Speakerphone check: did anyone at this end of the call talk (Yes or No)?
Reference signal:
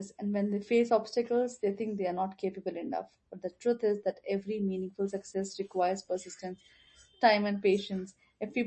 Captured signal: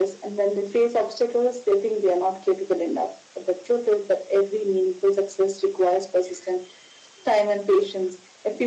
No